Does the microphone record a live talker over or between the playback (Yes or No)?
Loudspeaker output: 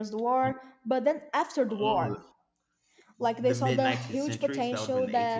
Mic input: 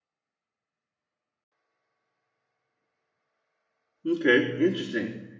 Yes